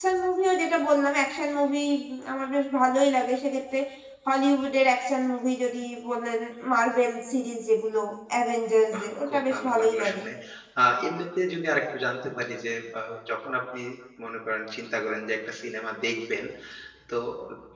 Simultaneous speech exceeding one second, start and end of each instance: 8.9-10.2

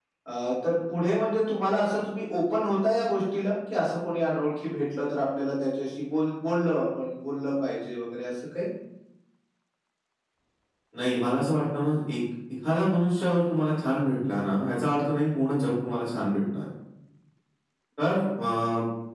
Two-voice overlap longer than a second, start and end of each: none

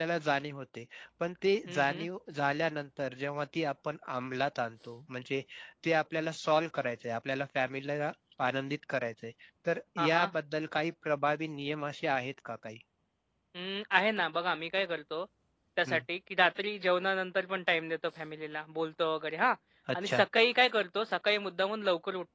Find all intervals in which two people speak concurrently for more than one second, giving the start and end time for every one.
none

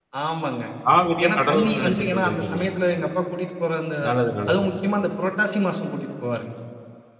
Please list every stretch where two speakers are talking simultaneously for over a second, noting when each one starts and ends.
1.2-2.6

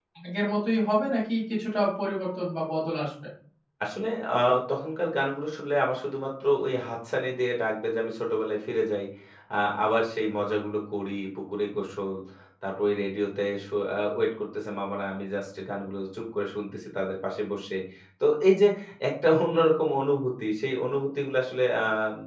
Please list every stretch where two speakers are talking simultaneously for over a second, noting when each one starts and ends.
none

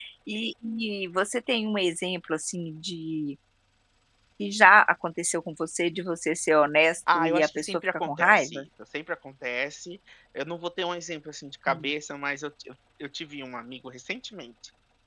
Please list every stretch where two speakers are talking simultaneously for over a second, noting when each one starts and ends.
7.1-8.6

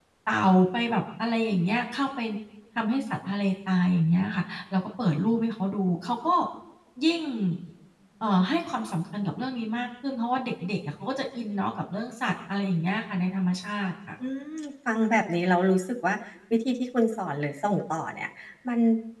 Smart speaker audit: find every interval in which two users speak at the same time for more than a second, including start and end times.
none

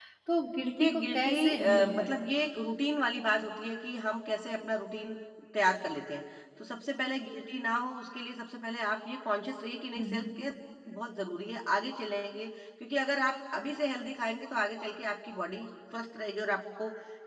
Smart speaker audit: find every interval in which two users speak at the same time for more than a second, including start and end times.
0.6-2.1

